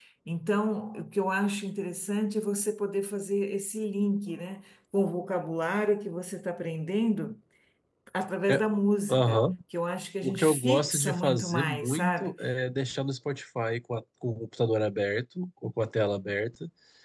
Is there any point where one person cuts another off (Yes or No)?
Yes